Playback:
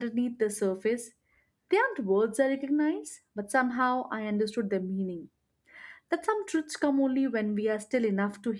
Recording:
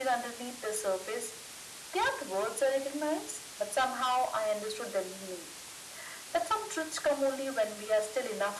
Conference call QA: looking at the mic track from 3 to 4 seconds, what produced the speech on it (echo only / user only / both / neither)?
echo only